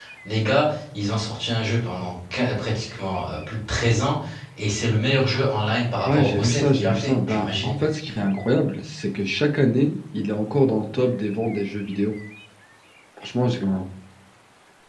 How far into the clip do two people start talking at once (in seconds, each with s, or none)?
6.0 s